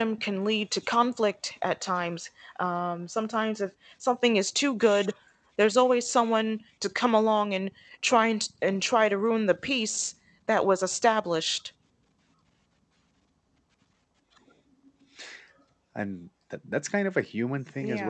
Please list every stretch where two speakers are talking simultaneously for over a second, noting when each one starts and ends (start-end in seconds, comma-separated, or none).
none